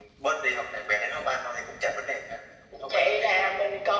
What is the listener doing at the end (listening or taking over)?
taking over